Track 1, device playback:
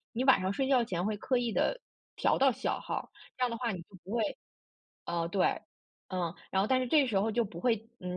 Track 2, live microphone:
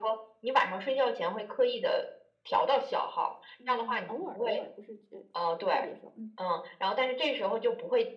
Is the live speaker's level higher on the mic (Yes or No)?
No